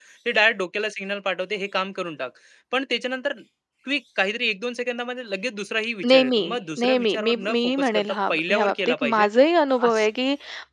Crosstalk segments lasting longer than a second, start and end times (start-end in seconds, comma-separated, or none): 6.8-9.3